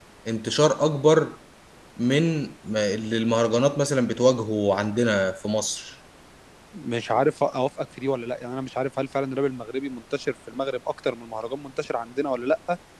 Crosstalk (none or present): none